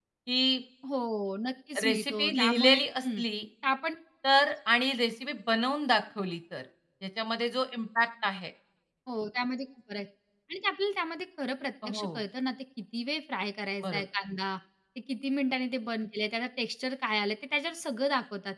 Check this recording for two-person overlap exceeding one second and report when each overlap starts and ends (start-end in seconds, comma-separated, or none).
1.8-3.2